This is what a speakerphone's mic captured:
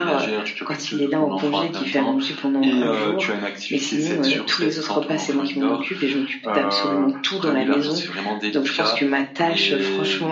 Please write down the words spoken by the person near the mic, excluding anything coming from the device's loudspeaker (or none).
none